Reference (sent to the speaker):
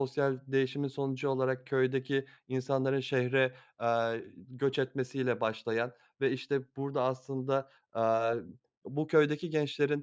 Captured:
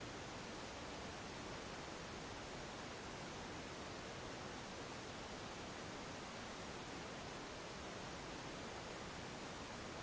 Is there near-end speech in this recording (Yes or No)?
No